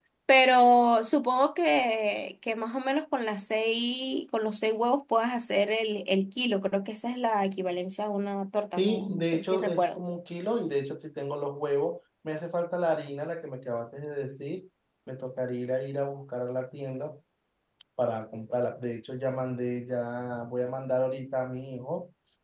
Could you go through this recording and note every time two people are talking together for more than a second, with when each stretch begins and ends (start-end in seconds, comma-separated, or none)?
8.8-10.0